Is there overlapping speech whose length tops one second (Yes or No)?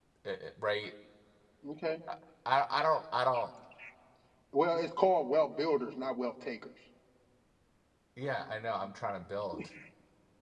No